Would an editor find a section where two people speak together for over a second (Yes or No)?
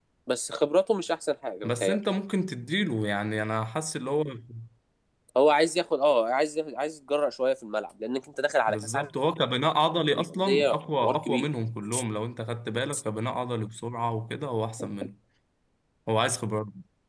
Yes